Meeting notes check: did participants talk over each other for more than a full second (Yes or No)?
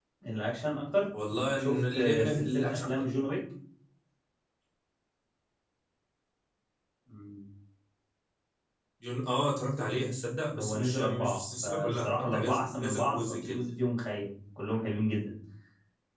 Yes